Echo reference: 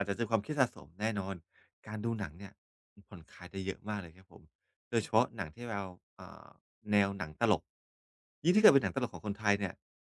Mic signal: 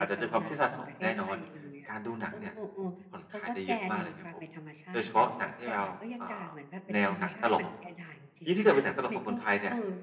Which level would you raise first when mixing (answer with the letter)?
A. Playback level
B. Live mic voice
B